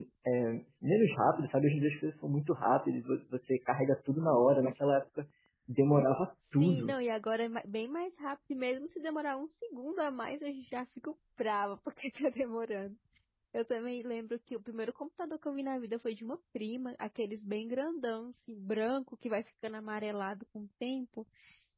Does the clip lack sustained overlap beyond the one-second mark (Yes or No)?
Yes